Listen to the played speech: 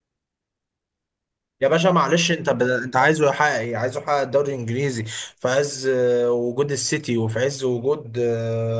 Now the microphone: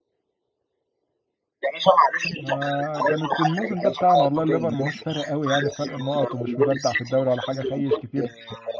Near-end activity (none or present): present